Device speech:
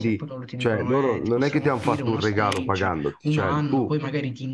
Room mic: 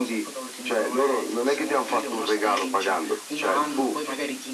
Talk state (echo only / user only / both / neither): echo only